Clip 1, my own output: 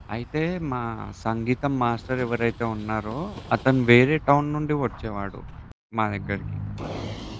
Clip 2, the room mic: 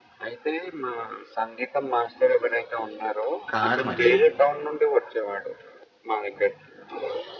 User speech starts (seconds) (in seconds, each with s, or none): 3.5 s